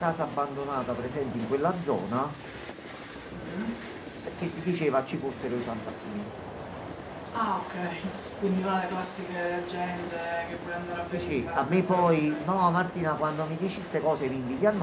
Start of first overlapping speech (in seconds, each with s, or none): 11.1 s